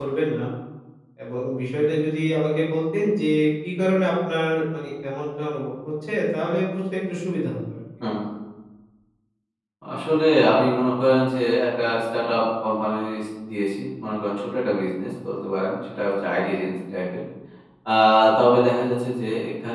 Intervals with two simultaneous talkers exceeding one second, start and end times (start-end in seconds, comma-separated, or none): none